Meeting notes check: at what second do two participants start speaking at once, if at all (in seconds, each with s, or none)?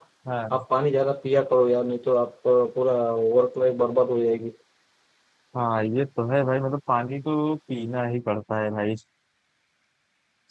none